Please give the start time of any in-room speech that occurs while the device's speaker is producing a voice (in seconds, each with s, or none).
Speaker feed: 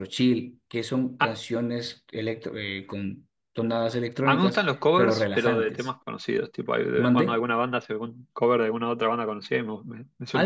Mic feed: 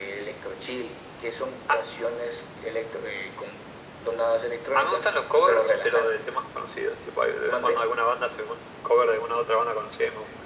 none